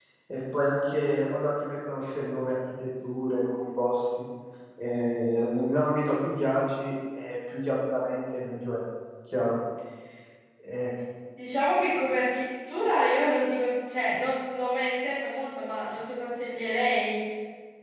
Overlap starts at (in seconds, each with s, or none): none